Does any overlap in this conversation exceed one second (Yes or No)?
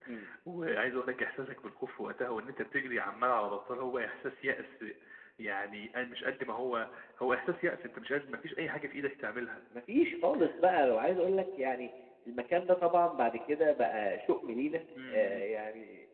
No